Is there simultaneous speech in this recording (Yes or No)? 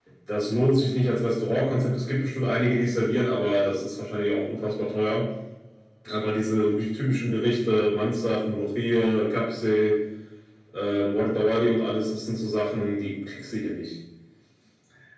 No